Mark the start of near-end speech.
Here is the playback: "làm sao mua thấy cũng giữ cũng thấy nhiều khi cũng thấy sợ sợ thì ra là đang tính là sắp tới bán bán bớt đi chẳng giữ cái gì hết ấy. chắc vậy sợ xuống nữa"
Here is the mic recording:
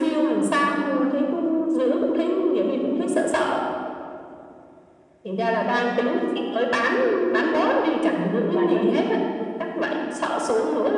8.5 s

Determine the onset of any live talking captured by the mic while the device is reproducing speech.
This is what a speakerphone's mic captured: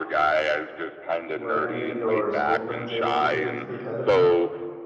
1.3 s

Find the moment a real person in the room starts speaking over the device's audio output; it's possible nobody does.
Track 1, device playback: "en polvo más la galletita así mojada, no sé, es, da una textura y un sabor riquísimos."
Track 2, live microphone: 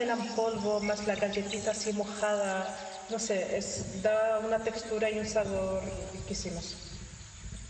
none

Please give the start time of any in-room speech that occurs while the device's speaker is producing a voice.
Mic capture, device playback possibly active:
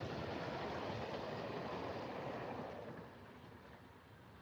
none

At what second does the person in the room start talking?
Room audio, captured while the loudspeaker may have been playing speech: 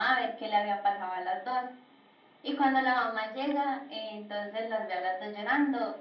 none

